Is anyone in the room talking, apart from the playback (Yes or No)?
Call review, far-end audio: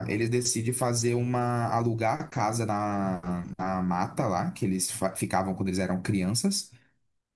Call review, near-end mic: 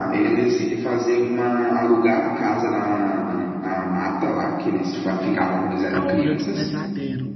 Yes